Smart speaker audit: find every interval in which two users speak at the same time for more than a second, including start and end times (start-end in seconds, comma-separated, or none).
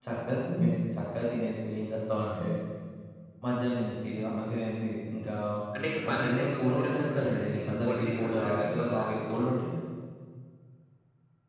6.0-9.5